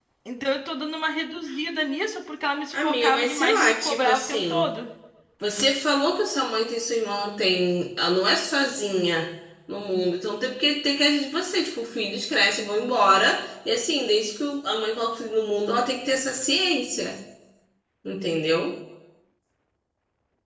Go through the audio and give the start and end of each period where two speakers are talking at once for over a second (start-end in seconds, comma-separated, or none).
2.7-4.6